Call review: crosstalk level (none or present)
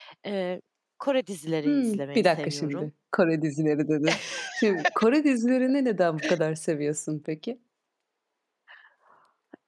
present